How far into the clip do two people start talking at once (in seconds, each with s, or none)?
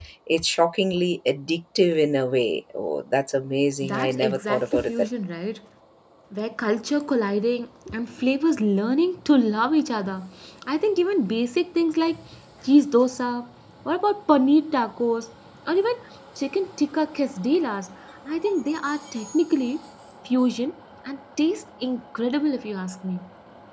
3.8 s